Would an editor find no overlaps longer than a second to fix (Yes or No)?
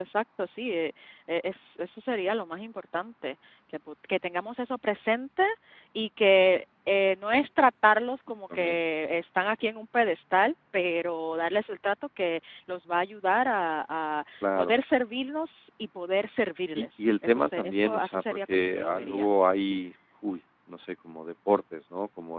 No